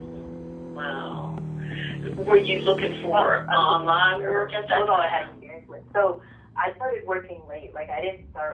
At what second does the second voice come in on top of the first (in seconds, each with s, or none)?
3.0 s